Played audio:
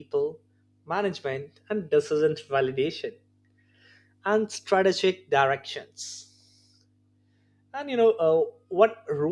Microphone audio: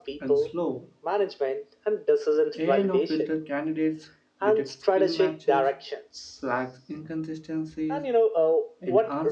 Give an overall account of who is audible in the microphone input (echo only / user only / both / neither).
both